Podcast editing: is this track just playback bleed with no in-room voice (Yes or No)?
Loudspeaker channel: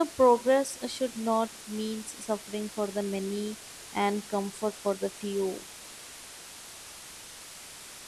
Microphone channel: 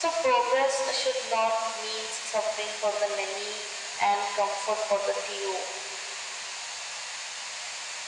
Yes